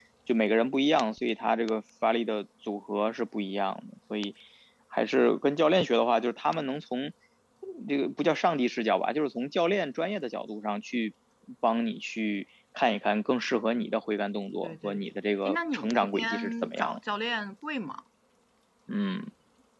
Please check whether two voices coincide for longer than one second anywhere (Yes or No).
Yes